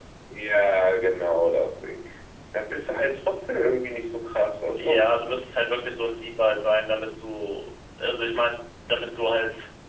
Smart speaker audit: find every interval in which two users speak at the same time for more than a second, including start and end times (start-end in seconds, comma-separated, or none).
none